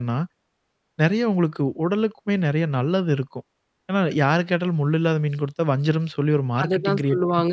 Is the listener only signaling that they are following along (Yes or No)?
No